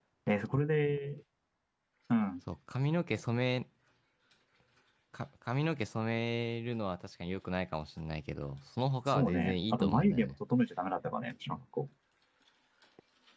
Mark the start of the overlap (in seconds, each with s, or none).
9.1 s